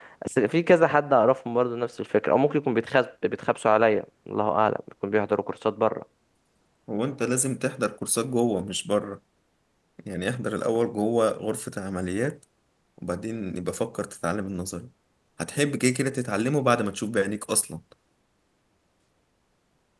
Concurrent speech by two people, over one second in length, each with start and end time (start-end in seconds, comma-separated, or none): none